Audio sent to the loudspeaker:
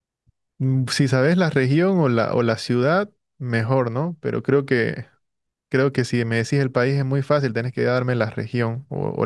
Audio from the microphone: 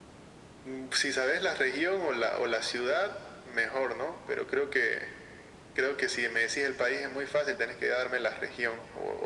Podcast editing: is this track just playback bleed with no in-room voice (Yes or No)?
Yes